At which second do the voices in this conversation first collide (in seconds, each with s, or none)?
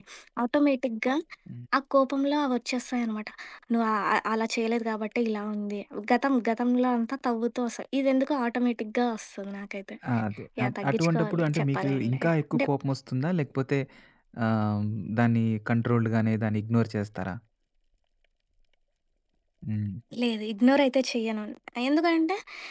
10.6 s